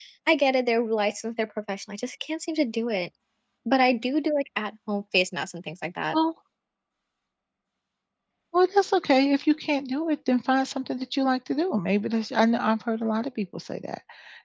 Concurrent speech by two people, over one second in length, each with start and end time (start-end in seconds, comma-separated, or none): none